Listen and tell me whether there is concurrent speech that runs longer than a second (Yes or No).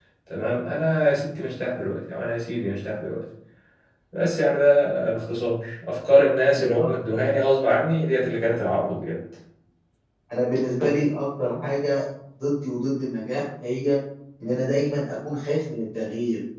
No